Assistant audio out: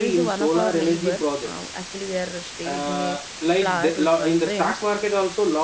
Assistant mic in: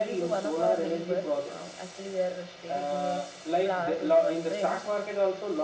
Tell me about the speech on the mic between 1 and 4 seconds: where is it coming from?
echo only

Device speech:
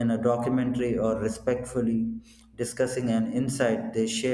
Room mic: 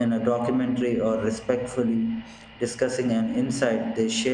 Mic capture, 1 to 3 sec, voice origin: echo only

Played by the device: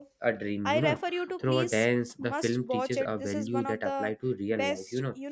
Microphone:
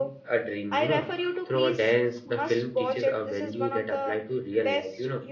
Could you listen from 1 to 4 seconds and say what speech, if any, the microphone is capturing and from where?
echo only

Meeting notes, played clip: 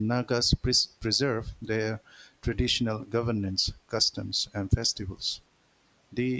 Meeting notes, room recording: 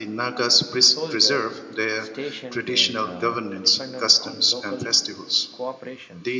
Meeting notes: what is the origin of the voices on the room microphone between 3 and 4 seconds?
both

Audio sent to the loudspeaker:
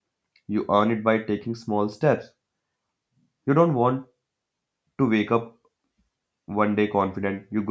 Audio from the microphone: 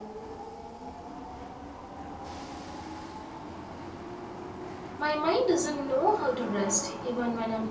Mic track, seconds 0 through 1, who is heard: neither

